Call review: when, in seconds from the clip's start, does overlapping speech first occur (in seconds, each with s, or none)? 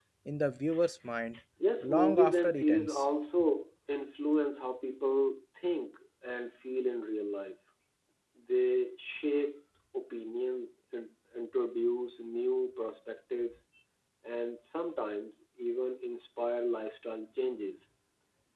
1.8 s